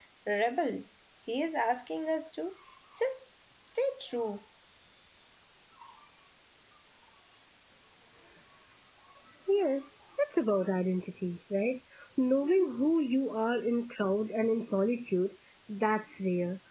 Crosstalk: none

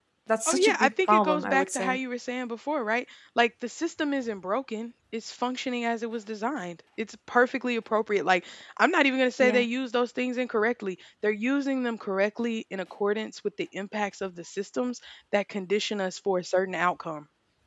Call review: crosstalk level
present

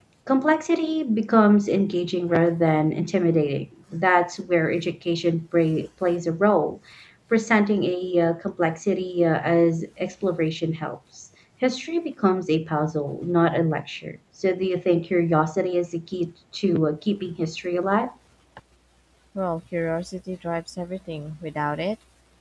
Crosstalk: none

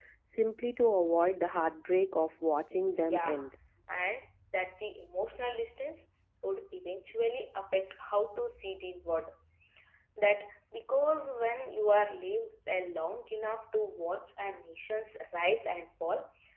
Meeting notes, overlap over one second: none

